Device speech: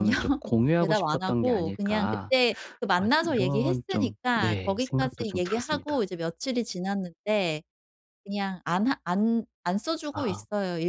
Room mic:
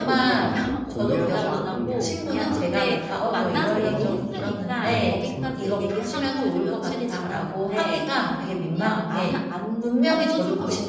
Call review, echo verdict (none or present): present